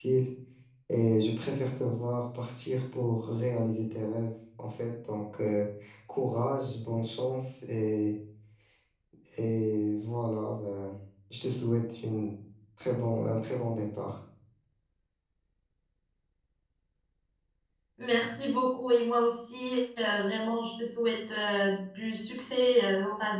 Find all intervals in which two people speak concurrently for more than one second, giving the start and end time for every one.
none

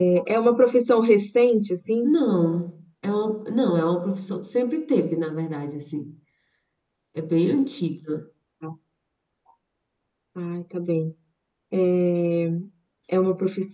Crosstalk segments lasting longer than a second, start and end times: none

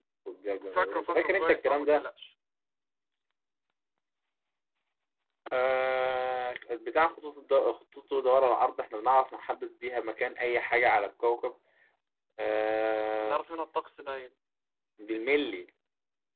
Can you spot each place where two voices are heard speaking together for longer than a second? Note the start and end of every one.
0.7-2.0

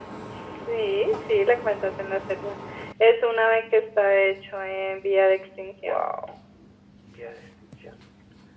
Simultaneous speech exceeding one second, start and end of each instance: none

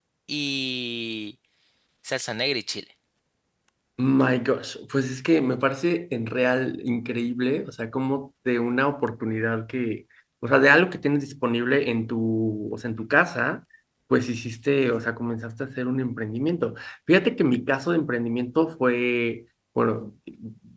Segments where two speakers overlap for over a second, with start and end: none

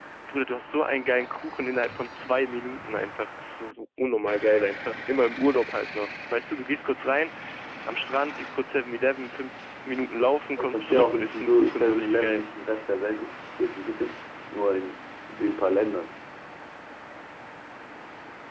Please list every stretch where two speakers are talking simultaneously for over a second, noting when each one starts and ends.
10.6-12.4

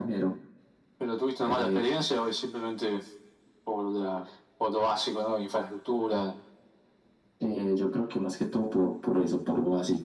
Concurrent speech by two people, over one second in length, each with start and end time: none

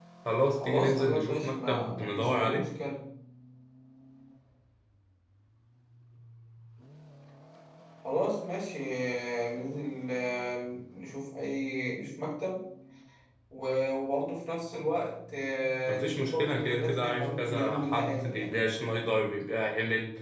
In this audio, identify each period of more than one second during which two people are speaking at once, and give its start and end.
0.6-2.7, 15.9-18.5

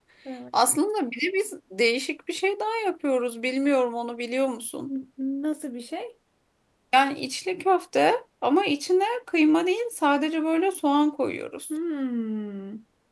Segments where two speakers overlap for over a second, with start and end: none

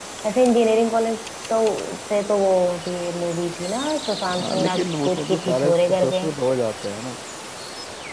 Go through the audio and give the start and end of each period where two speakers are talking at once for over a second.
4.4-6.2

